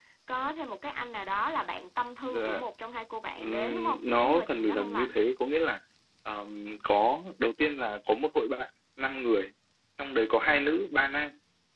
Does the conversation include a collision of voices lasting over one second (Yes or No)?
Yes